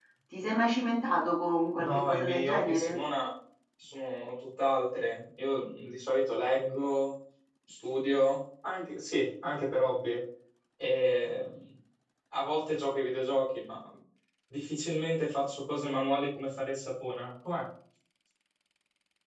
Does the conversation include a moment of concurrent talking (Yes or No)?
Yes